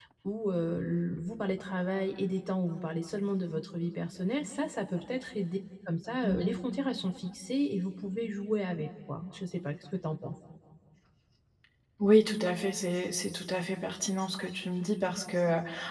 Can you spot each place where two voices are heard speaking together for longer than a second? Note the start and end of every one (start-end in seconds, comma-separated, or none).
none